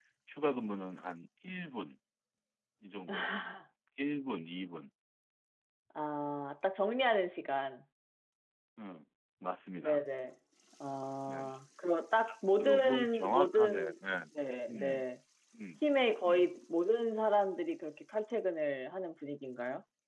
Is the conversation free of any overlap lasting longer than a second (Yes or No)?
No